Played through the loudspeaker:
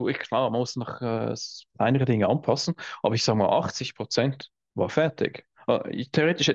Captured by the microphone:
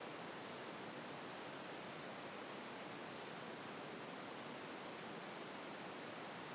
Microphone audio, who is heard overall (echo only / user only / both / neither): neither